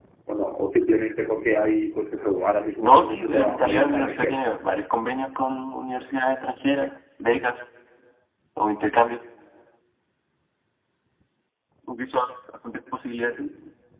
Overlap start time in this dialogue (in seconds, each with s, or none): 2.8 s